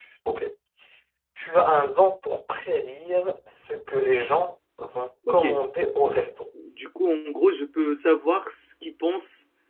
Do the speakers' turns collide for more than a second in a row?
No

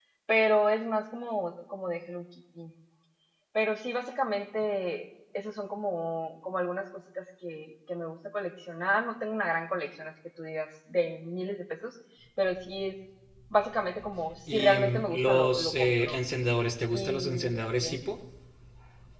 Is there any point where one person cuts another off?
Yes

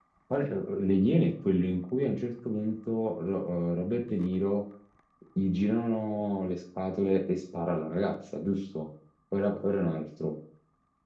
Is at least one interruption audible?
No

